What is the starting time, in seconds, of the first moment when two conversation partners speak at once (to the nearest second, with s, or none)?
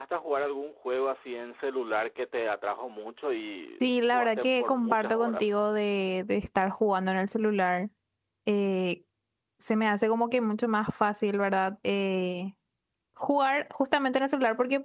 4 s